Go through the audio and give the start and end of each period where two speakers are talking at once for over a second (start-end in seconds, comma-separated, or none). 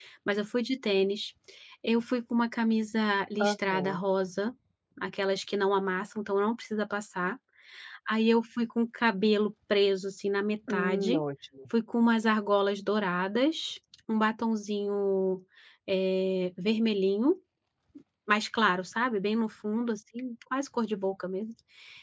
none